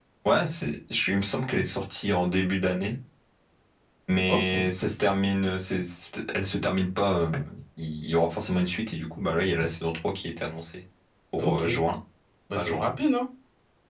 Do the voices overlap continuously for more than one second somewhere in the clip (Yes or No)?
No